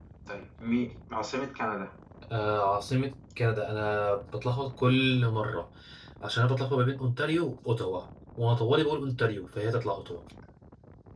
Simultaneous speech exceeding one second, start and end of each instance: none

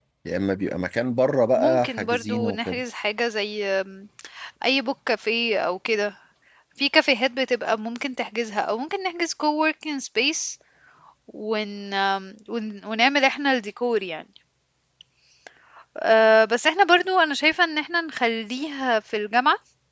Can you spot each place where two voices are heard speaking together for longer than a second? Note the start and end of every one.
1.5-2.8

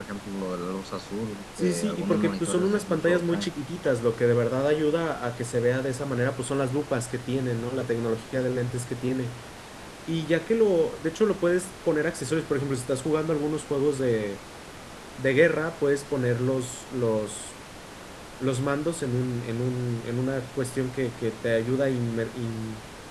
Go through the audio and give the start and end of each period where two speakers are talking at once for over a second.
1.6-3.5

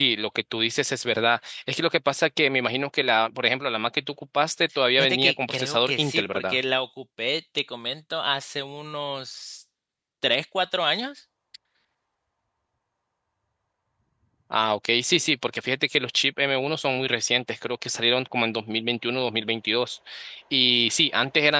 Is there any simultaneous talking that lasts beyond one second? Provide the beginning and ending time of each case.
5.0-6.6

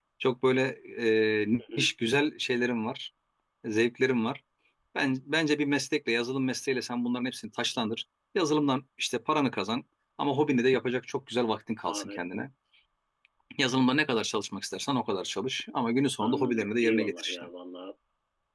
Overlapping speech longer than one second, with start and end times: 16.2-17.5

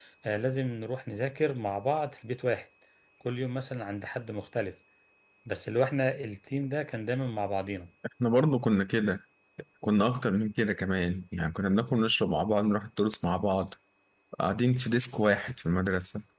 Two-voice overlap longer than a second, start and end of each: none

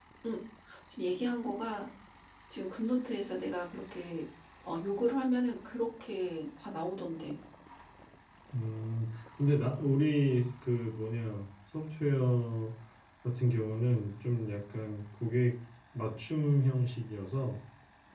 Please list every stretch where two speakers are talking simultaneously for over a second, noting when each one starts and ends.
none

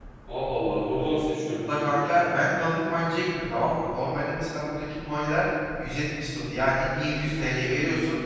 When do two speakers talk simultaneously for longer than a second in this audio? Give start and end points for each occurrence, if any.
none

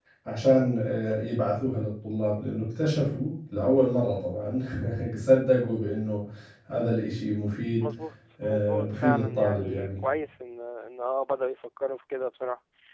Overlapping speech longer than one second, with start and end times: 8.4-9.9

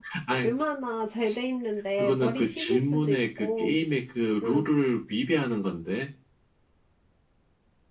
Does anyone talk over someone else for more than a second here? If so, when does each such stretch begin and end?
1.9-3.8

